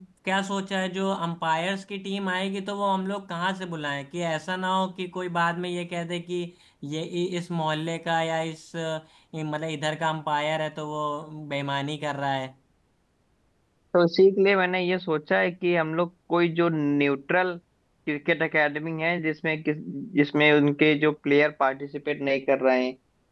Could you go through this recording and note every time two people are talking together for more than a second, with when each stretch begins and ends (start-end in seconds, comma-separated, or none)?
none